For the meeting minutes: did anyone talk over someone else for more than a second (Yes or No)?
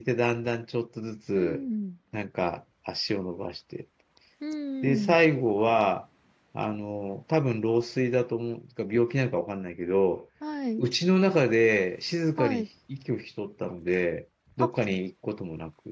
No